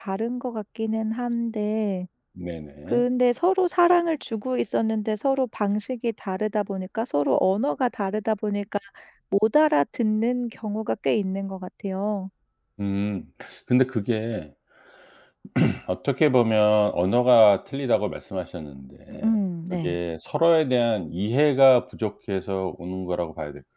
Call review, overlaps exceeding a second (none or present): none